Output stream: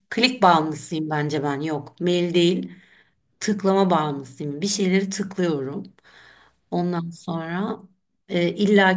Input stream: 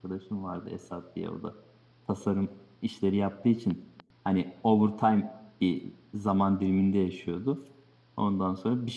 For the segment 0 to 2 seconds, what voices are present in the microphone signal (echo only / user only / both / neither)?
user only